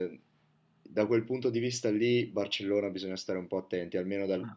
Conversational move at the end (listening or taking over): listening